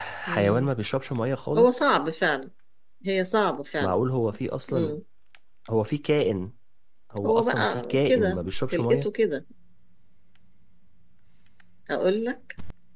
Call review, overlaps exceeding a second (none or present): present